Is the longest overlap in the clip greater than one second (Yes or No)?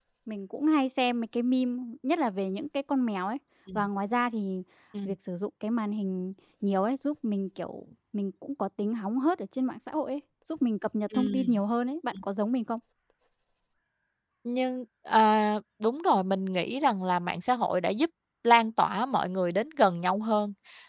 No